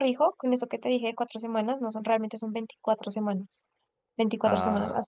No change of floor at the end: Yes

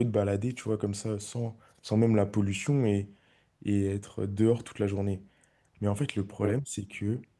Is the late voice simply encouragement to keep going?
Yes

